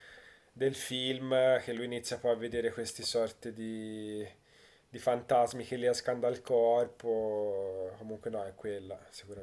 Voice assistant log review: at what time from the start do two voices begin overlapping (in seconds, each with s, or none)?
none